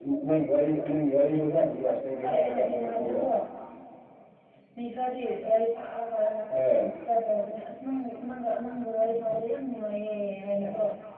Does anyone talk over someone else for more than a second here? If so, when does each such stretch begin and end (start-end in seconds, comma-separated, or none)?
1.9-3.2